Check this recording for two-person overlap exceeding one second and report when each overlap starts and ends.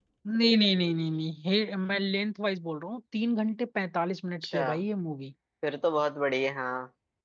none

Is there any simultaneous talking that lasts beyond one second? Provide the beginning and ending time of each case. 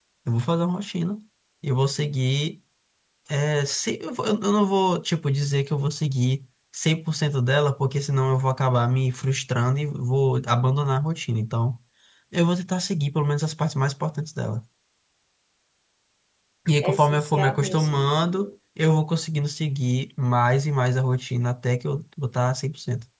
16.8-18.5

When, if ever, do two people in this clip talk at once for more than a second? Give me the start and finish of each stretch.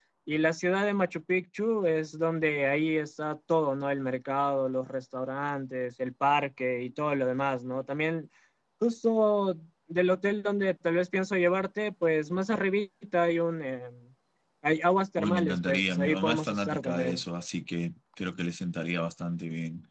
15.2-17.2

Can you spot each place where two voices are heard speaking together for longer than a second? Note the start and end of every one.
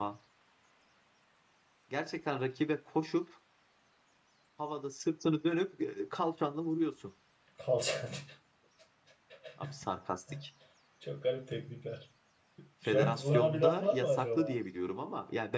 12.8-14.6

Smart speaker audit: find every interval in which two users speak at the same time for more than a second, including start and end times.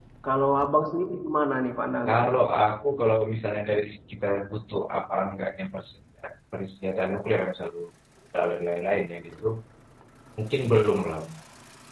none

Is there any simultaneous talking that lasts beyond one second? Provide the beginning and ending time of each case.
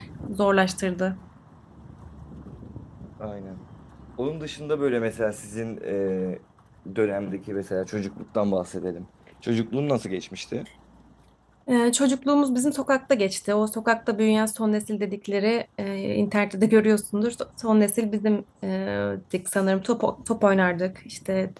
none

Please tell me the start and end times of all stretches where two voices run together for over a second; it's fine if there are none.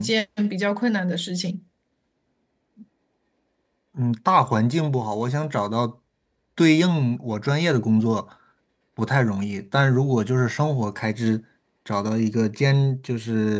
none

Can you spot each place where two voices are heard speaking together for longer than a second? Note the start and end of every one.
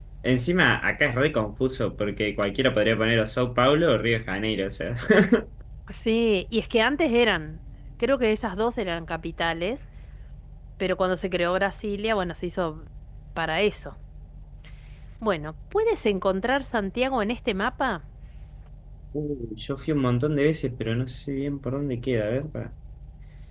none

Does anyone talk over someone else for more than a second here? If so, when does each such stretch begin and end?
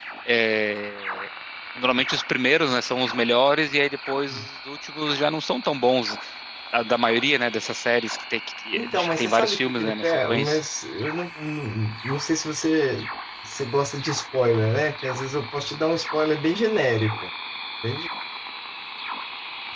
8.7-10.6

